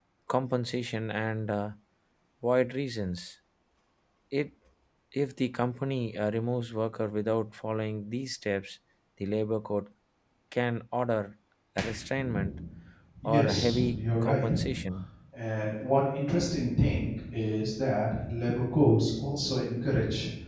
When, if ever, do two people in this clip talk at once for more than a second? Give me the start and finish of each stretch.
13.2-14.5

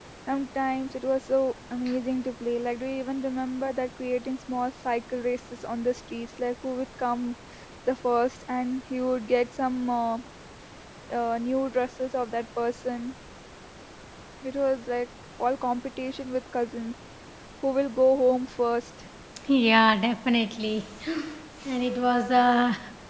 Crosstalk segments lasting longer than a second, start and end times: none

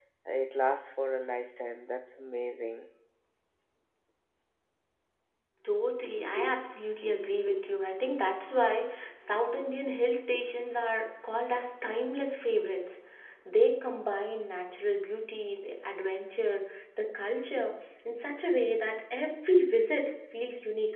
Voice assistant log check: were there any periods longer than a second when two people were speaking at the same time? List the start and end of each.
none

